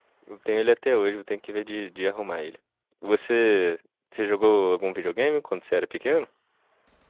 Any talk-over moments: No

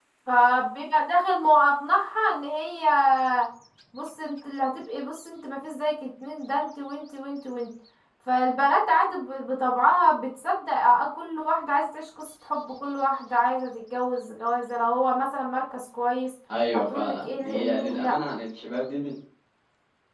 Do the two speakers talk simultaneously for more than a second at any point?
Yes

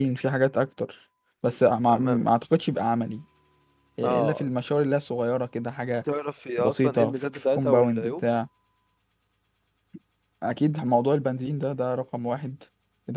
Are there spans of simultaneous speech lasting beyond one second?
Yes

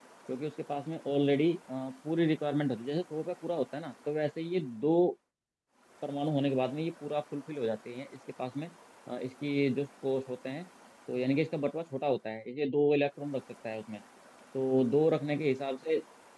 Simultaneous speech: No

